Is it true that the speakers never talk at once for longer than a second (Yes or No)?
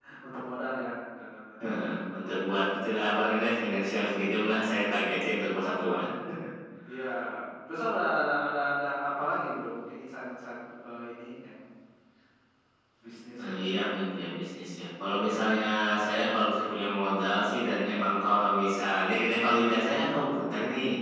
Yes